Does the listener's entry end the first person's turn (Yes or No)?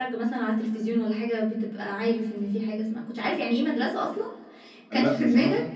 Yes